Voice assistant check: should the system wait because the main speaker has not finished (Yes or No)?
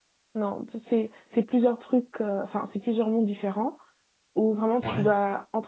Yes